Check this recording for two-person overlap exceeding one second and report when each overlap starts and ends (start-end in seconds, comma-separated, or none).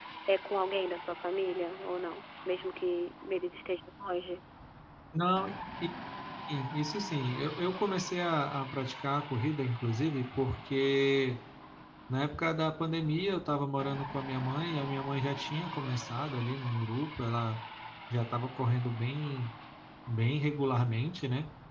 none